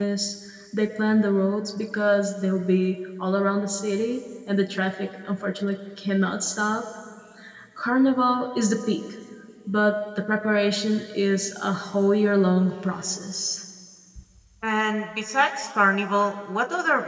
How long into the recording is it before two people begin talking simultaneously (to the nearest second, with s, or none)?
none